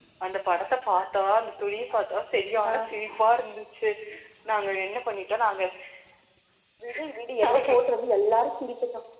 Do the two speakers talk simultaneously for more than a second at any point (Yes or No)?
No